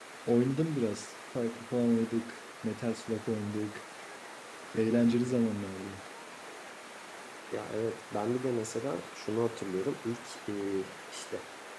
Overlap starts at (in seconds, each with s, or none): none